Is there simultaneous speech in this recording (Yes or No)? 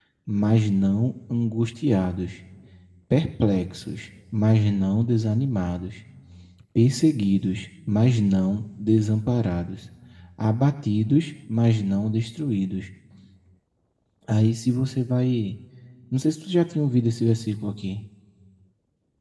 No